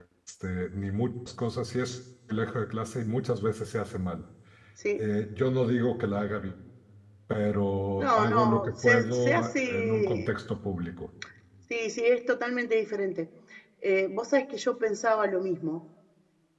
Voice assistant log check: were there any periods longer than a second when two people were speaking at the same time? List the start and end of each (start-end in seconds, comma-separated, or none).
8.0-10.3